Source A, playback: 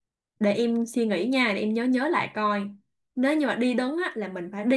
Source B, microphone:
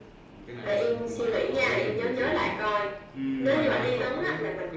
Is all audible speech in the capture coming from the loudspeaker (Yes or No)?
No